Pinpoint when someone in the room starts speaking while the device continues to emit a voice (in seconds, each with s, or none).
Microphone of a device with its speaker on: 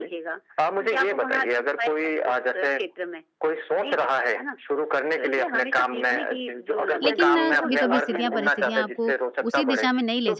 7.0 s